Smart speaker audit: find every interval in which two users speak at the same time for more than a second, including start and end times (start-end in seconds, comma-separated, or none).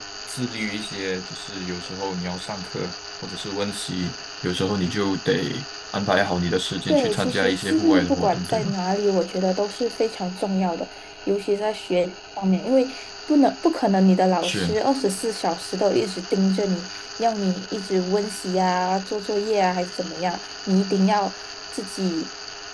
6.9-8.7